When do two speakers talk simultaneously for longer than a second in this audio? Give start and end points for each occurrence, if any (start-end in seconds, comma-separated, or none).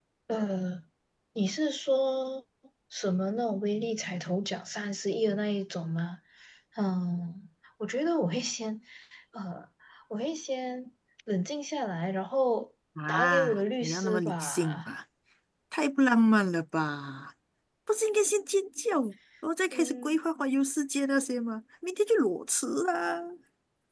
13.1-14.9